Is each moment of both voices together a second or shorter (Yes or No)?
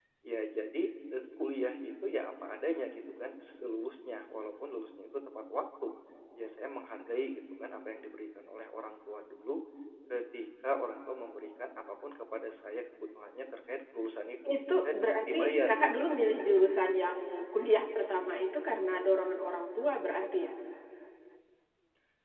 No